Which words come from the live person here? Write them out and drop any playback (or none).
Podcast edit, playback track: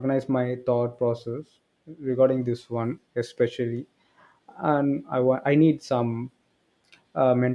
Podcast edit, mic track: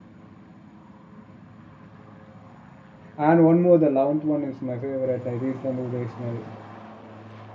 And one more, the eleventh one is my favorite. The reasonable, rational.